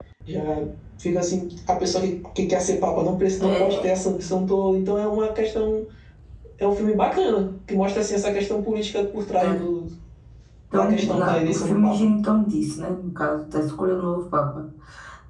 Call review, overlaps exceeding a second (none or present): present